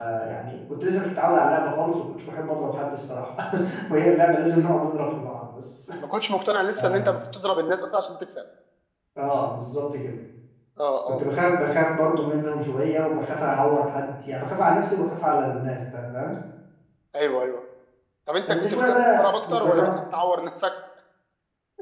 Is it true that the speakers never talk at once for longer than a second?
No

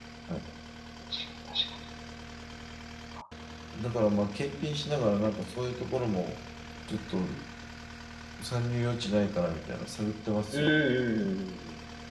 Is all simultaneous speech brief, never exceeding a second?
Yes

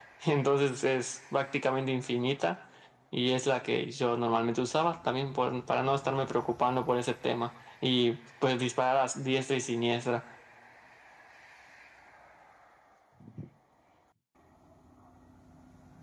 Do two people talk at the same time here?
No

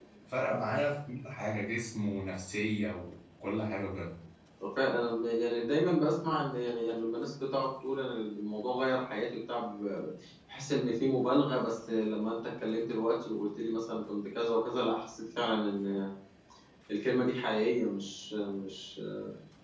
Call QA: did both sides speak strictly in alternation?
Yes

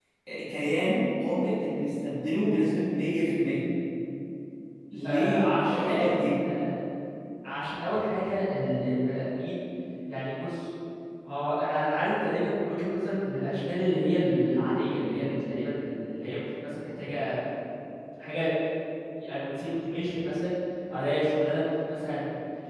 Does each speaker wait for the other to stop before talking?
No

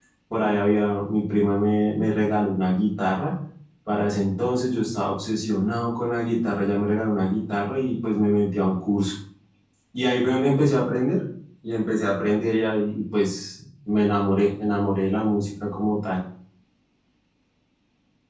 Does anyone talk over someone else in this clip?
No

